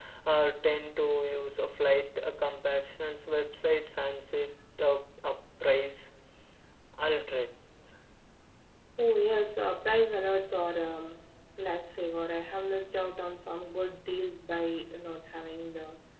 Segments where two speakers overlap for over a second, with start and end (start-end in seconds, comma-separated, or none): none